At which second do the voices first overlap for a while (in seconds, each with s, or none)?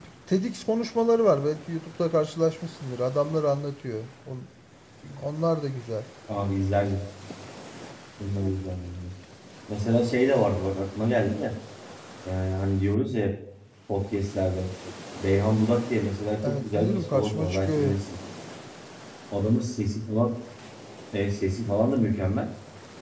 16.4 s